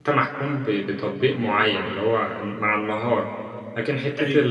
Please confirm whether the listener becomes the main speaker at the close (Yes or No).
No